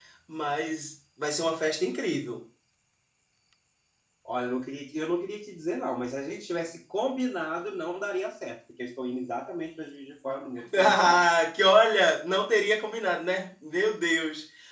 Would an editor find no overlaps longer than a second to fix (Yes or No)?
Yes